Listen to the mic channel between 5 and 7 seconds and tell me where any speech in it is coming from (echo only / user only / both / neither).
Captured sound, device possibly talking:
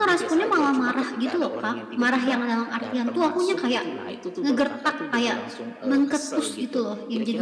both